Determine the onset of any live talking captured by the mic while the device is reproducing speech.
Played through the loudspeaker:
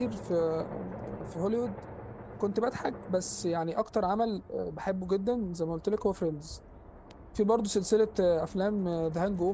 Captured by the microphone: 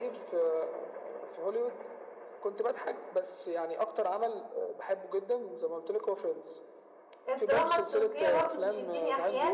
7 s

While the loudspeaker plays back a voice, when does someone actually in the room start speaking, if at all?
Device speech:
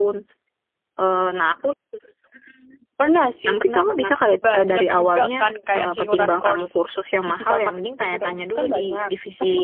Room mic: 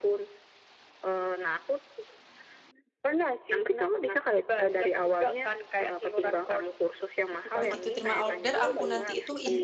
8 s

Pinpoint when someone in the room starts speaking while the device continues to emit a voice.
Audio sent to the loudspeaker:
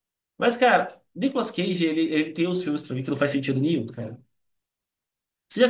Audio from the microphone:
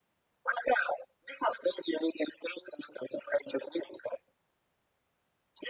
none

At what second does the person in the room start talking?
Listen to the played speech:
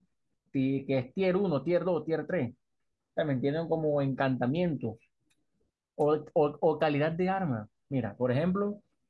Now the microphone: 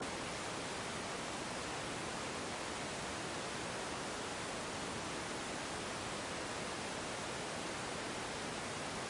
none

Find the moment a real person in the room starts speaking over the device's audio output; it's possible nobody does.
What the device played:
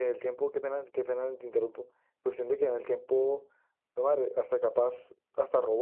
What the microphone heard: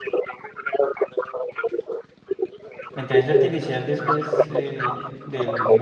3 s

